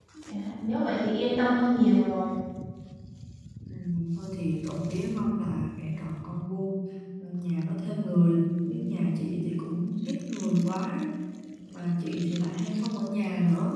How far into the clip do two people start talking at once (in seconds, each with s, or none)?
none